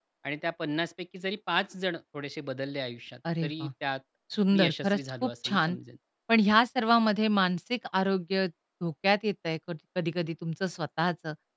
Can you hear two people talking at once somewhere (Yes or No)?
Yes